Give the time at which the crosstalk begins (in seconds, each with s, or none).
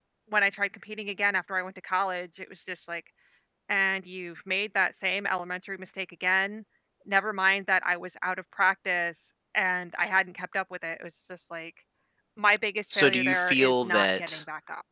12.9 s